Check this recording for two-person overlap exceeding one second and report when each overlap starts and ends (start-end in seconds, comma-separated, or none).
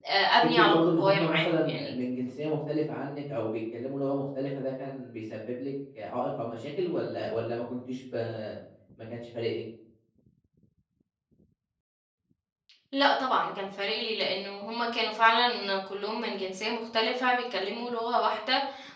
0.5-1.9